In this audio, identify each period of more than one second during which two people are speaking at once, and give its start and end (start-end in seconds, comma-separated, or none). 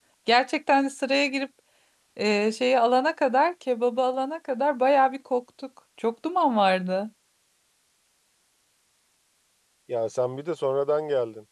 none